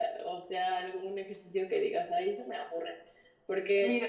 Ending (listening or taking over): listening